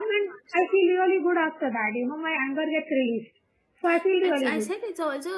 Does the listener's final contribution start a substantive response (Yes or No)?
Yes